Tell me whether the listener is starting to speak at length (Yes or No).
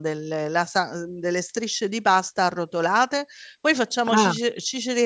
No